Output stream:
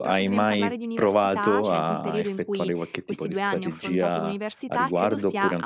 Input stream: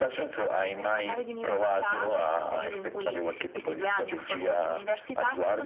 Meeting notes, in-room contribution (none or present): none